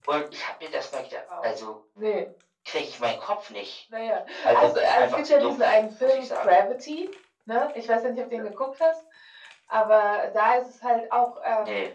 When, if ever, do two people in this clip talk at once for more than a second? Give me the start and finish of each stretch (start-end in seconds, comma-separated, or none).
4.5-6.5